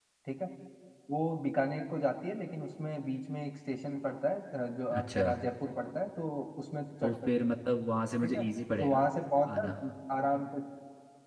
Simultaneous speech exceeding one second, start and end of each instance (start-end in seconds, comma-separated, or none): none